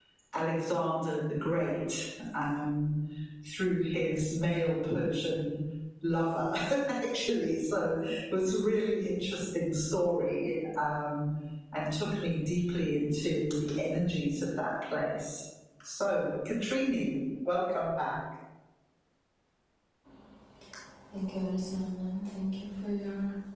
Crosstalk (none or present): none